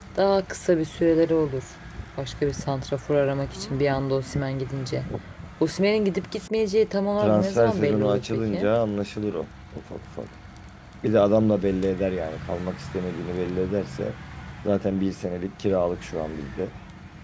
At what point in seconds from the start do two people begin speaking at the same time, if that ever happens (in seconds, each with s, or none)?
7.2 s